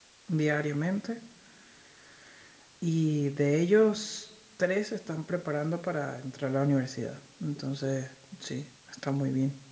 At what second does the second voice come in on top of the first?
none

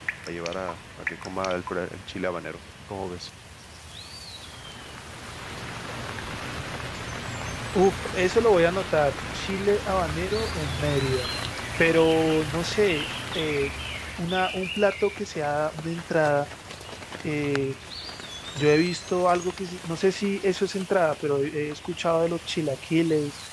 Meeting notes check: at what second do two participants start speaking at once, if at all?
none

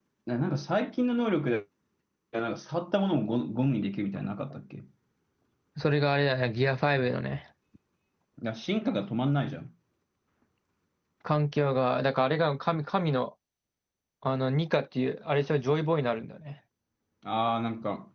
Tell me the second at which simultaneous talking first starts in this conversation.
none

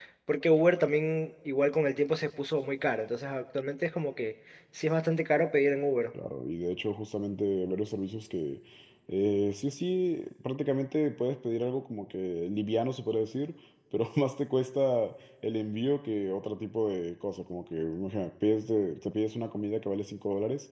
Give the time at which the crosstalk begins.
none

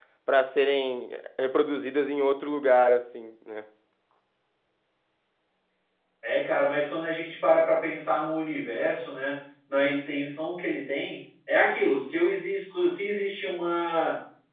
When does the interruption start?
none

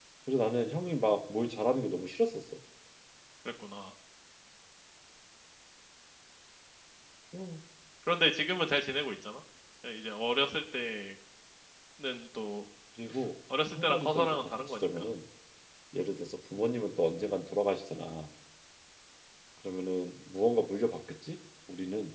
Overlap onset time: 13.7 s

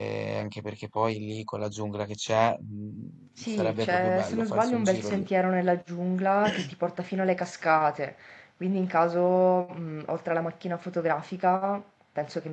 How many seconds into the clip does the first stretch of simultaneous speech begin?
3.4 s

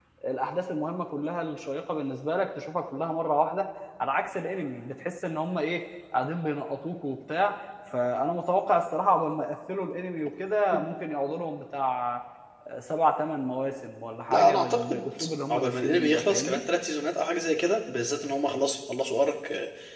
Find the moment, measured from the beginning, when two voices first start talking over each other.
14.3 s

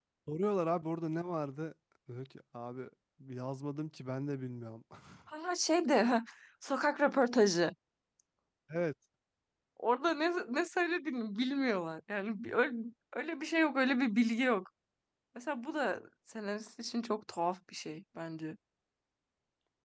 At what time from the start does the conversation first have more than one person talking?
none

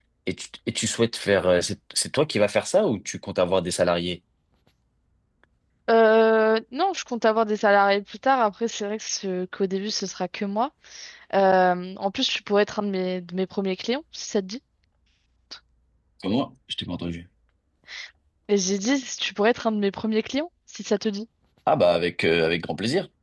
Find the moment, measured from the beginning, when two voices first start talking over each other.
none

